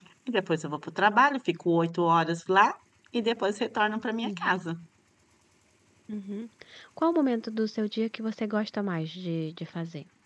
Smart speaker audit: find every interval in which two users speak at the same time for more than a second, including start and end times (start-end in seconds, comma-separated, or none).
none